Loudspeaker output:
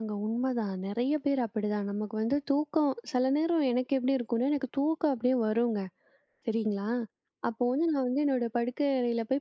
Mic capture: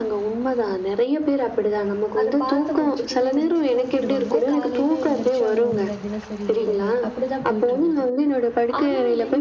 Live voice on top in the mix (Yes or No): No